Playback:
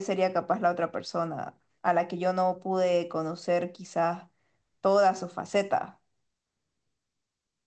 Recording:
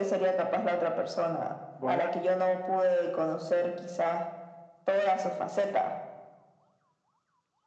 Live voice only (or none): Bueno,